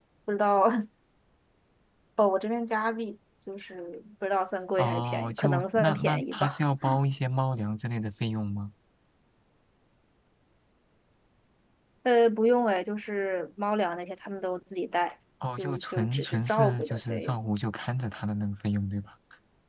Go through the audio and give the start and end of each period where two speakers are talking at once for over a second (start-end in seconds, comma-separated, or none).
4.8-6.6, 15.6-17.4